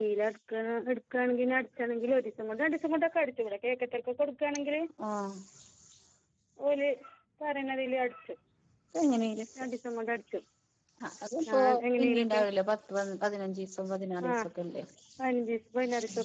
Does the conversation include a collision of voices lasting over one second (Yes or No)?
No